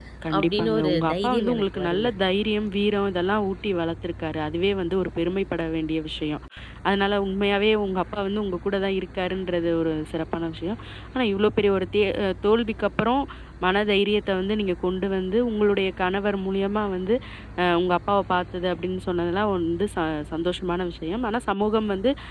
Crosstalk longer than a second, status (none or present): present